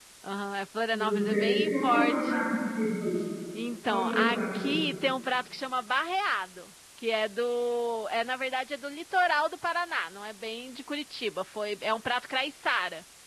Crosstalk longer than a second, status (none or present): present